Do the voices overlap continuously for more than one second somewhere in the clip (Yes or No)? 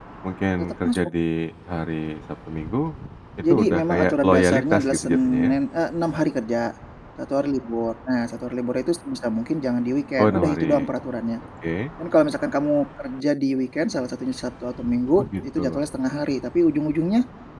Yes